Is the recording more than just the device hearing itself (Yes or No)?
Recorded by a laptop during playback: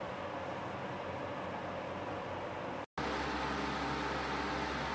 No